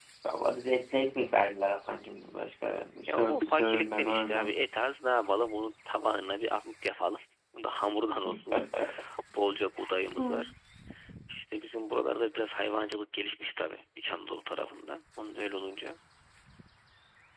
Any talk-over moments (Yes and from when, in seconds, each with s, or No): Yes, from 3.1 s